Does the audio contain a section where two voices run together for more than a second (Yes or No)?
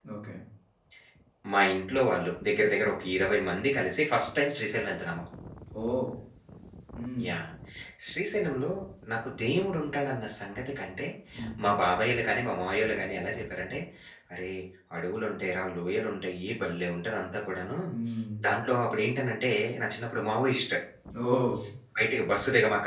No